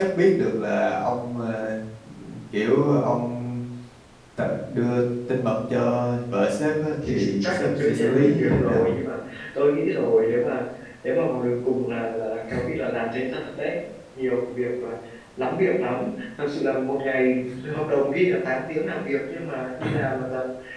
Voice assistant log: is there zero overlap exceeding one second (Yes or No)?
No